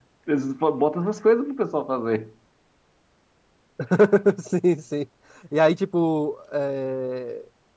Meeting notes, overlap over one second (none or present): none